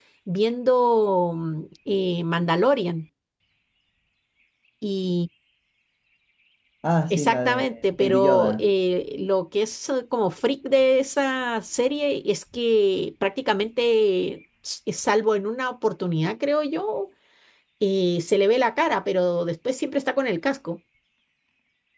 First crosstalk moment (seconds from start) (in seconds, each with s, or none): 7.1 s